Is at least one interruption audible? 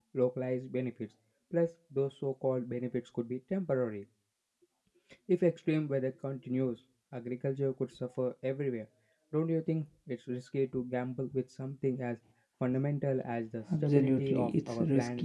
Yes, from 13.7 s

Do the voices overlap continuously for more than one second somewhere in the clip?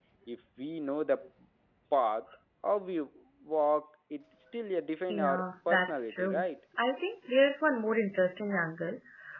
Yes, from 5.1 s

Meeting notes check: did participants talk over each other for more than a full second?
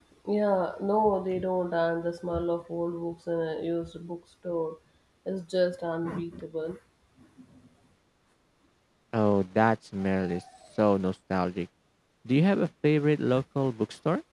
No

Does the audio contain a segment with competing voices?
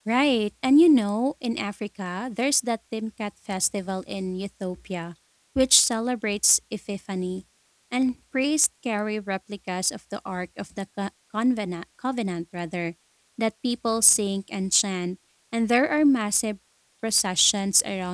No

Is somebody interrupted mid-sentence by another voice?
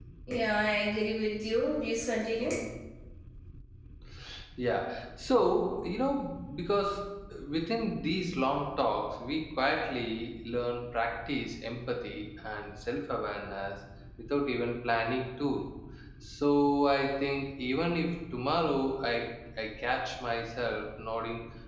No

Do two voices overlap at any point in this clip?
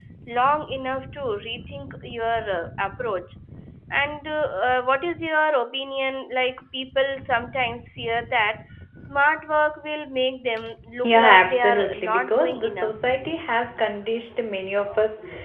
Yes, from 11.0 s

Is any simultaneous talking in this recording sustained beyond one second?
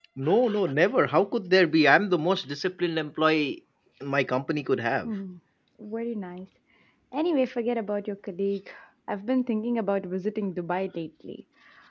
No

